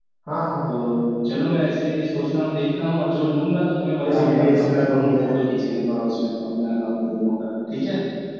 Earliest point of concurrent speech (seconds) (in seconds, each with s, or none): 4.0 s